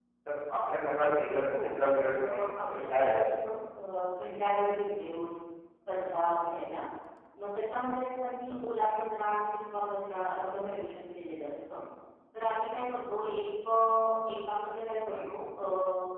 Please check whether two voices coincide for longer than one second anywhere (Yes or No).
Yes